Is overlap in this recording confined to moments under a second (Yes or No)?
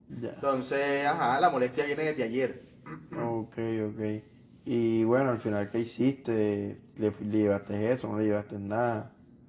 Yes